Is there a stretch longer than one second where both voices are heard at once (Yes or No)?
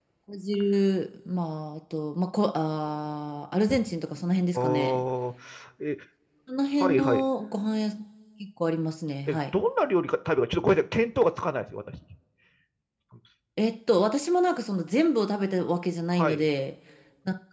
No